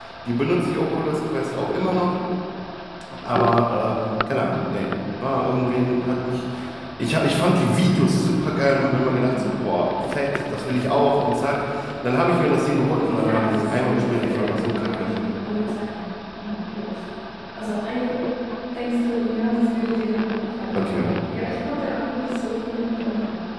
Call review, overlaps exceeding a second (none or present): present